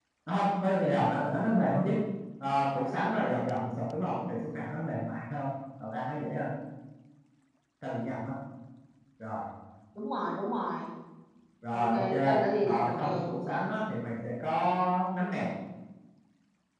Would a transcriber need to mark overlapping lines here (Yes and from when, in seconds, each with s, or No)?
Yes, from 11.7 s